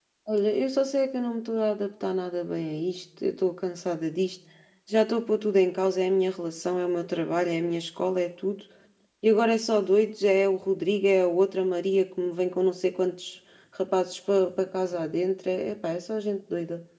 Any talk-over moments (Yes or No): No